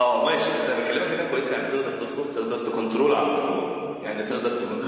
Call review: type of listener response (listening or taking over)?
taking over